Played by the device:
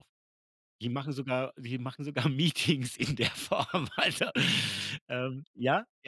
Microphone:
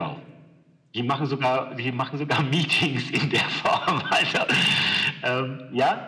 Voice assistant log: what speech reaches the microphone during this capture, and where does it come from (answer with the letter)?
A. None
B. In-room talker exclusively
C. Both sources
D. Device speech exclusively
D